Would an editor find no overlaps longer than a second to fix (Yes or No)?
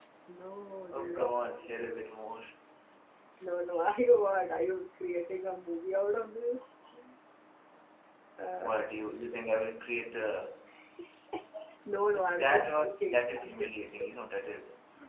No